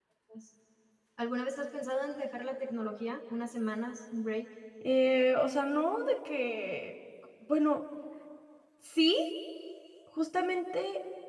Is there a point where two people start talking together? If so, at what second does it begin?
none

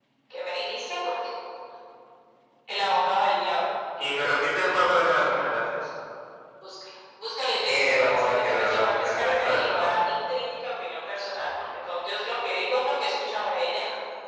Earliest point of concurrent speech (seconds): 7.6 s

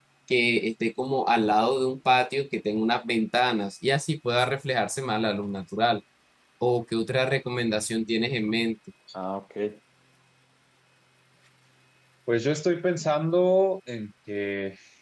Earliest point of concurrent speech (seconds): none

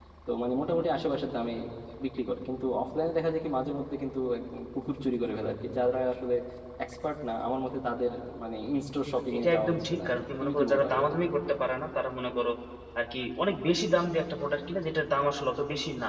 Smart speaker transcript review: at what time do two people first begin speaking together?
9.1 s

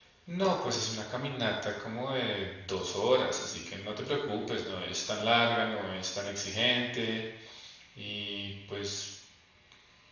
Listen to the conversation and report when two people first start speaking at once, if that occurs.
none

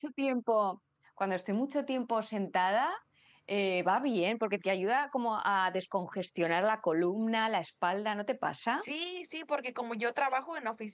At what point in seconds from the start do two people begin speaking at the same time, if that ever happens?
none

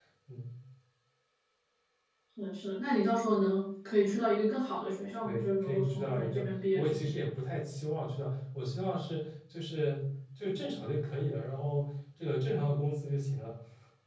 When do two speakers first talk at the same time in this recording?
5.2 s

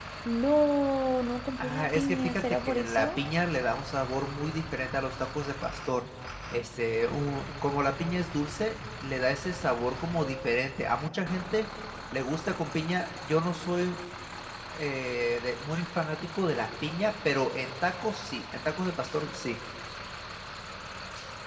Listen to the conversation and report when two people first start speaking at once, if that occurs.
1.6 s

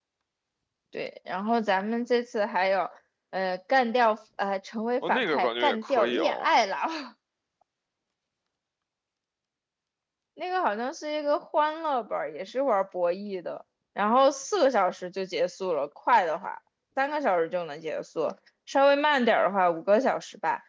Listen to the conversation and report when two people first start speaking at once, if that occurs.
5.0 s

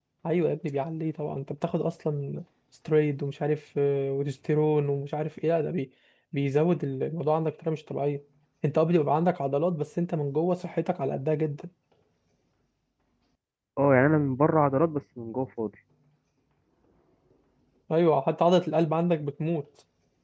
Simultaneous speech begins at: none

